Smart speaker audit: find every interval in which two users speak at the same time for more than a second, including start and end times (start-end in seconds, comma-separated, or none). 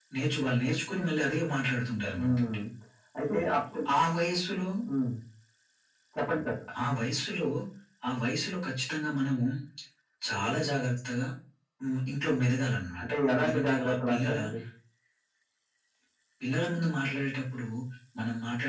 13.0-14.4